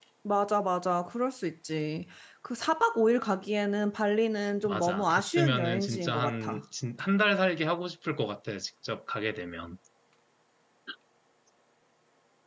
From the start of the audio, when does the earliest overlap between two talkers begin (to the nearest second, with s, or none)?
5 s